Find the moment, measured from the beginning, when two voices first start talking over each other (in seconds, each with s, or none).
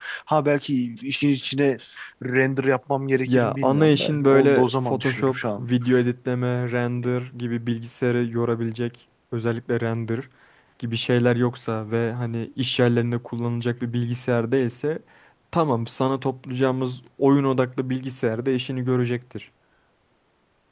3.2 s